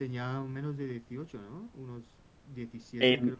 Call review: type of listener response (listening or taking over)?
taking over